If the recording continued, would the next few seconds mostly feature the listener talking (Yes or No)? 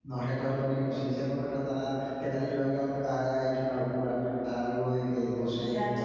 Yes